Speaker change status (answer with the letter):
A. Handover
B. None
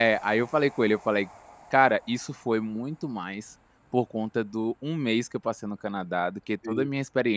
B